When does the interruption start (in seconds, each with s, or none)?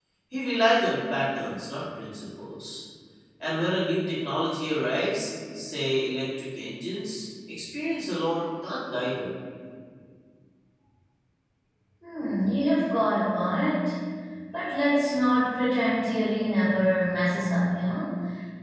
none